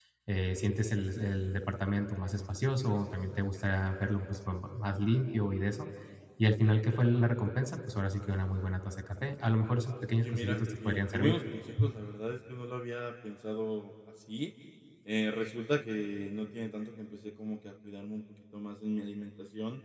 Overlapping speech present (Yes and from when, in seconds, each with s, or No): Yes, from 10.2 s